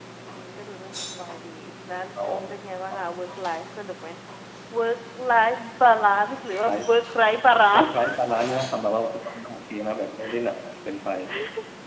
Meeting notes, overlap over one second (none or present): none